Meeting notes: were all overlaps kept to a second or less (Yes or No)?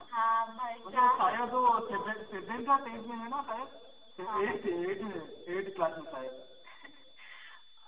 Yes